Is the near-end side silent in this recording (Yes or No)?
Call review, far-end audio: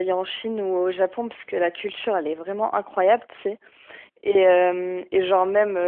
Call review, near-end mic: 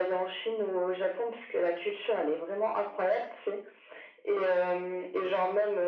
Yes